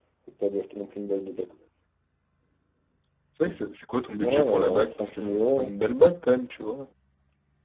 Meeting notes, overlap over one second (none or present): present